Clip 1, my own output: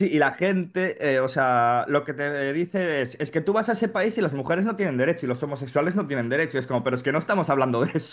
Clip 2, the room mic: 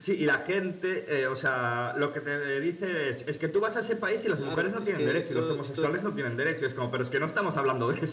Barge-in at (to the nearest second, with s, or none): 4 s